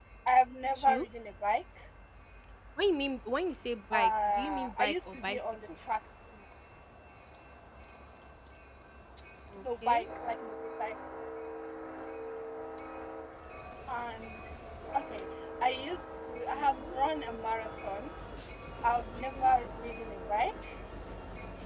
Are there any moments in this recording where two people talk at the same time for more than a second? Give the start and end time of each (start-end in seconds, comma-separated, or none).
3.9-5.5